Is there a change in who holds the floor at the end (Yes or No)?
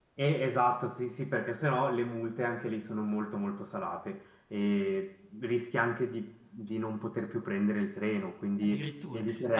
Yes